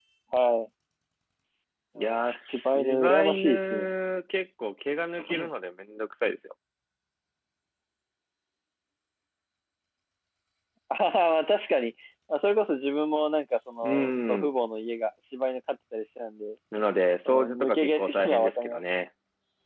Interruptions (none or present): present